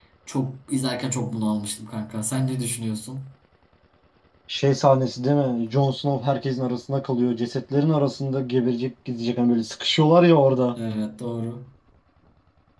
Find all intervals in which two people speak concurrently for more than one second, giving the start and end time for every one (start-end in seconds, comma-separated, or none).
none